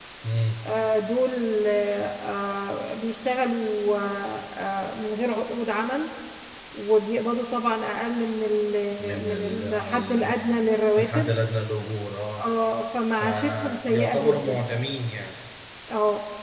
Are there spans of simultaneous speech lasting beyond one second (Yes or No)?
Yes